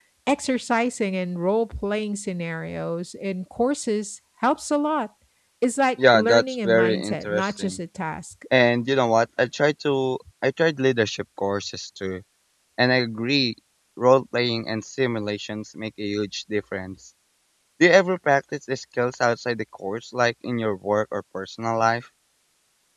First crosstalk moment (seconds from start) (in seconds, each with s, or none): 6.1 s